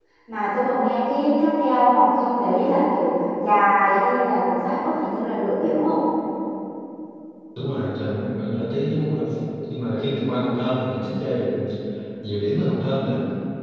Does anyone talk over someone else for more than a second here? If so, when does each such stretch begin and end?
none

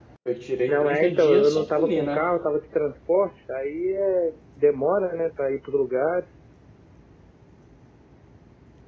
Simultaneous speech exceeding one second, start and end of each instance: 0.7-2.2

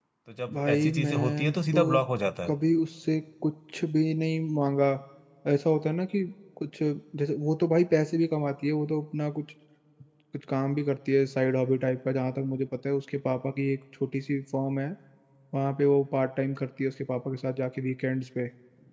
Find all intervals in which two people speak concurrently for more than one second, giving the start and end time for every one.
0.5-2.0

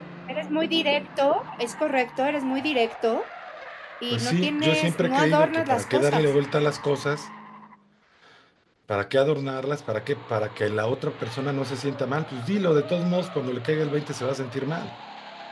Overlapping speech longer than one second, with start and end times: 4.1-6.3

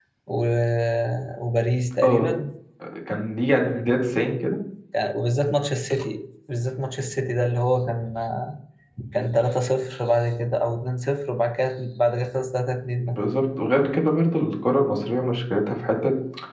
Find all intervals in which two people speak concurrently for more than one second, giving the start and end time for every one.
none

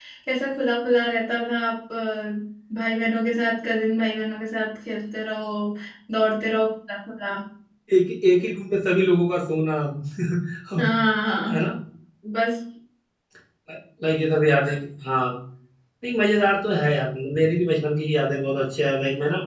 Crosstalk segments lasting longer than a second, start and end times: none

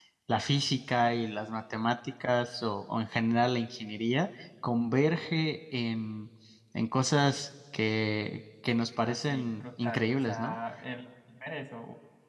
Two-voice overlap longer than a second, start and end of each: 9.0-10.6

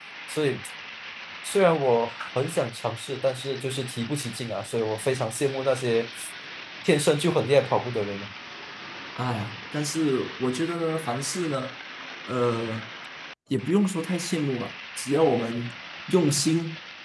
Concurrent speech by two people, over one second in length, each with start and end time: none

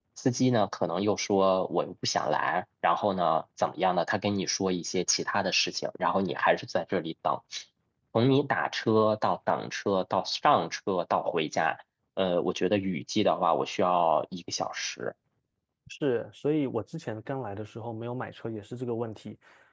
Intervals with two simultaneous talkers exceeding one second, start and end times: none

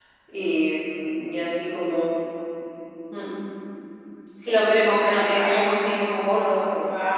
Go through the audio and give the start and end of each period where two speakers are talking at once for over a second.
none

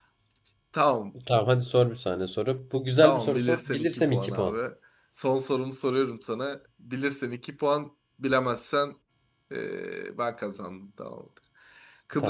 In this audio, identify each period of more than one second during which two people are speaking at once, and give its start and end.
3.0-4.5

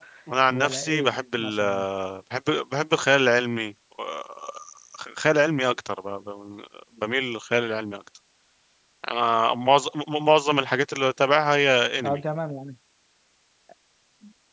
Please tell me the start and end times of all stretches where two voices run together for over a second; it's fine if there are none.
0.5-1.9

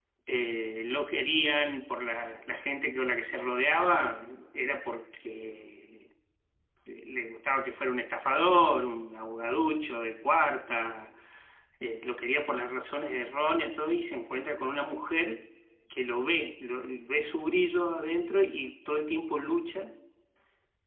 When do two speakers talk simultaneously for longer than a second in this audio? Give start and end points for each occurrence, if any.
none

